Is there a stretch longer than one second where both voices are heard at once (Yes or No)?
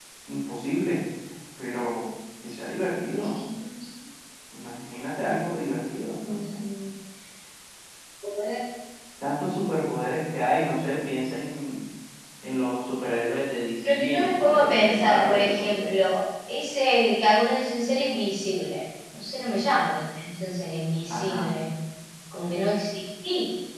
Yes